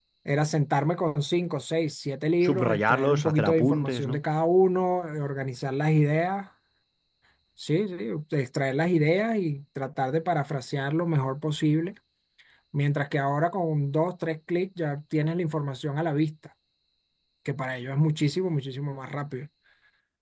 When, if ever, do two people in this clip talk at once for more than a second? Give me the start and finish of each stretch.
2.4-4.2

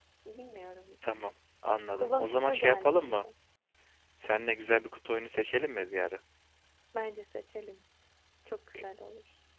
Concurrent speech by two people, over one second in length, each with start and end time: 2.0-3.3

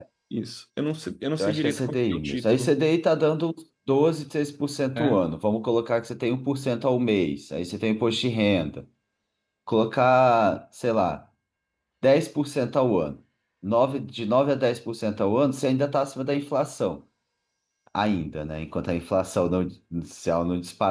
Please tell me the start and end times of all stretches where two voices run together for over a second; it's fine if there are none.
1.4-2.7

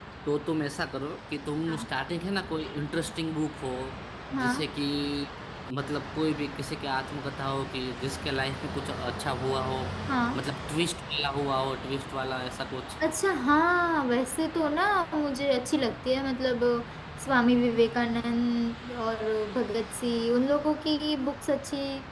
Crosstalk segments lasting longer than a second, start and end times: none

